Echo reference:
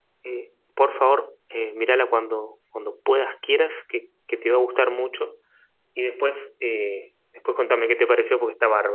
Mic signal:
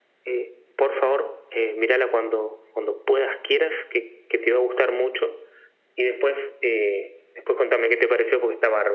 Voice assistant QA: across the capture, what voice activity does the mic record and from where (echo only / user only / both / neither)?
echo only